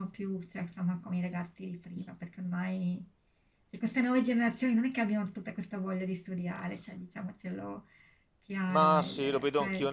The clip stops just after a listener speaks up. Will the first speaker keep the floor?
No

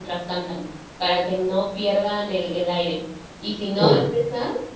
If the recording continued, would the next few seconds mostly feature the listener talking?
No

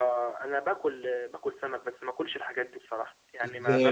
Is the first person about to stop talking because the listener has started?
Yes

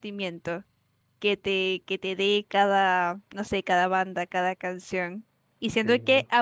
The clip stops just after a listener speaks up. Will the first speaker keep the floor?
Yes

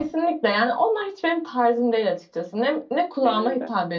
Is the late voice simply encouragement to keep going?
Yes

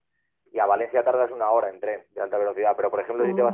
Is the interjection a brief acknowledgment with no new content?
Yes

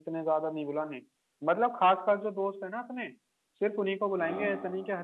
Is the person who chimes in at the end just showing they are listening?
Yes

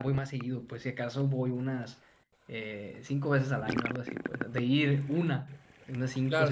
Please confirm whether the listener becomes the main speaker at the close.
Yes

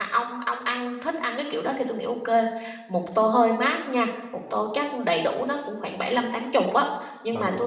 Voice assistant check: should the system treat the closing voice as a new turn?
No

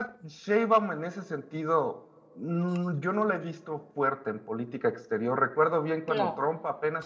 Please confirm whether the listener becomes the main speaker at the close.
No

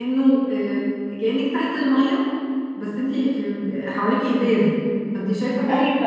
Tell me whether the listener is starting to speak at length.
Yes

